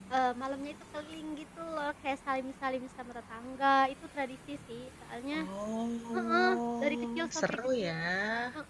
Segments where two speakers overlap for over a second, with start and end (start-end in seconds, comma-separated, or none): 6.1-7.9